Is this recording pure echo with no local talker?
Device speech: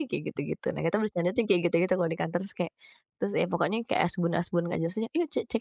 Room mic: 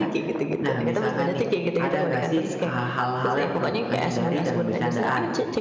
No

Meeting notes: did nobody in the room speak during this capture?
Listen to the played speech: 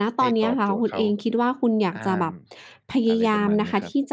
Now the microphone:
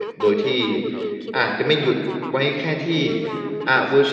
No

